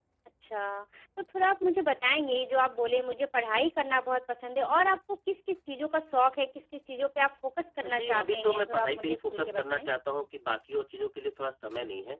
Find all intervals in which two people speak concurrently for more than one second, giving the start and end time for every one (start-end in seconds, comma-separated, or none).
7.8-9.9